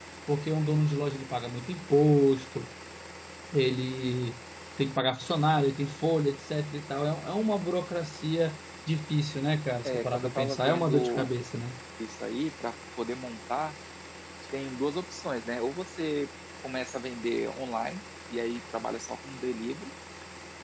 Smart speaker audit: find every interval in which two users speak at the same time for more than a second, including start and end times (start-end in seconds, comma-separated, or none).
9.8-11.3